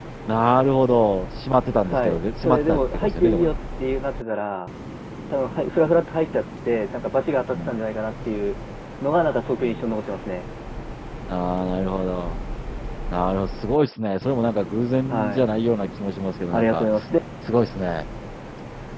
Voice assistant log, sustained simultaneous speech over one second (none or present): present